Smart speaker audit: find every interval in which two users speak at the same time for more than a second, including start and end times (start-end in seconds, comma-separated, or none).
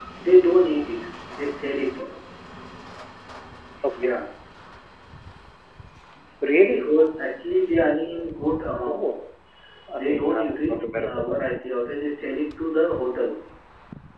10.0-11.2